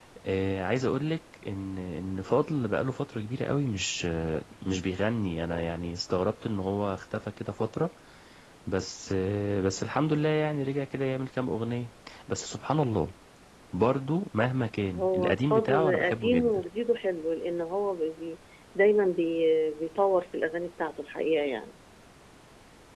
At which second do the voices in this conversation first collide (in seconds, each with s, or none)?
14.9 s